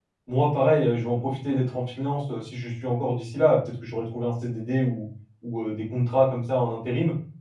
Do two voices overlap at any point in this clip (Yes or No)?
No